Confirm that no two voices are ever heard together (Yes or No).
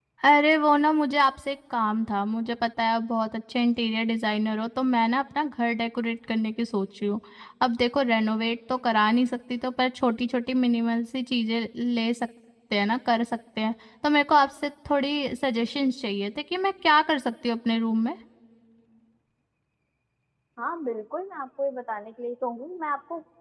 Yes